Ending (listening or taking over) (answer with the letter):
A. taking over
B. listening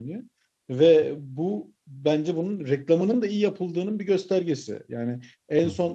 B